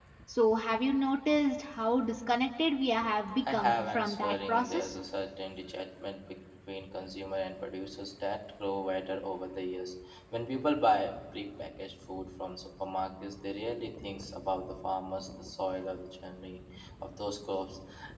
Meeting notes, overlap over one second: present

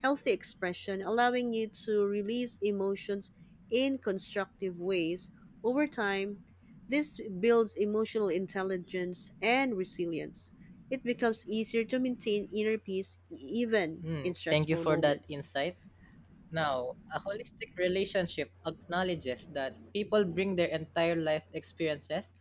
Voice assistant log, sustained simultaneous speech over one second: present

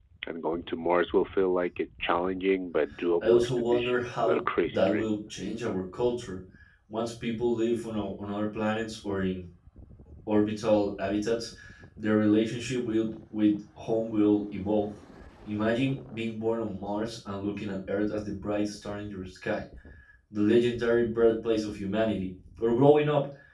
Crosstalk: present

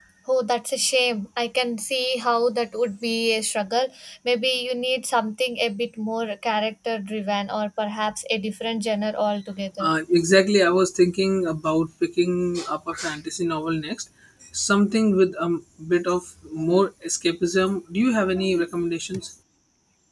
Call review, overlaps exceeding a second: none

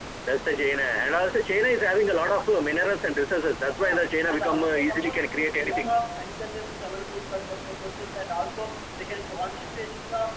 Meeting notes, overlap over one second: present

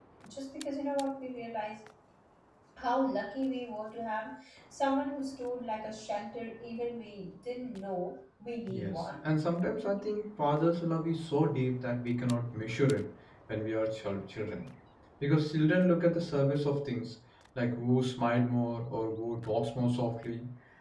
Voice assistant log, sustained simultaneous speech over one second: none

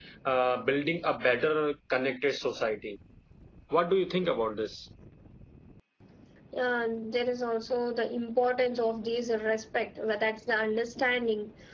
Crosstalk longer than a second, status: none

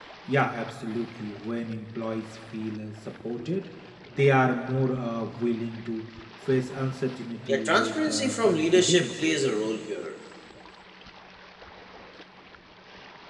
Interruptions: present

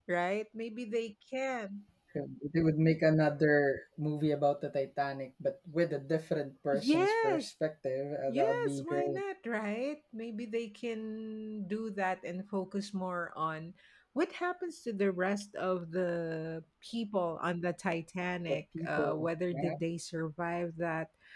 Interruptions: present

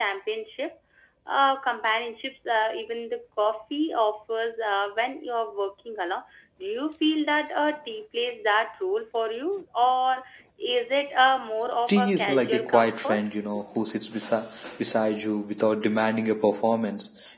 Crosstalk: present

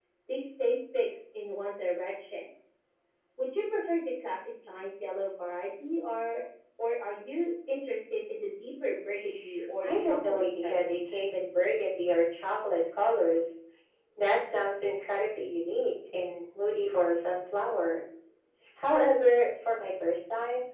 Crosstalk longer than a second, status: present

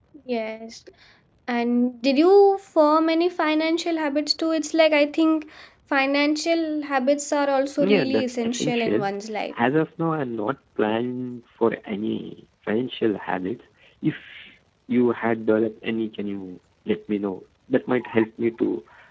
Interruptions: present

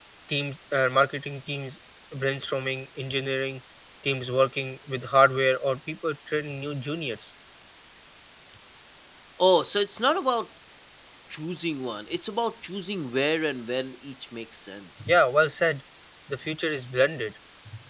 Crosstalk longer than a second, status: none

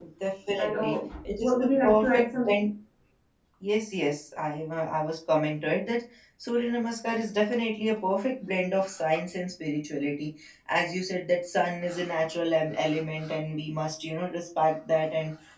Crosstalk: present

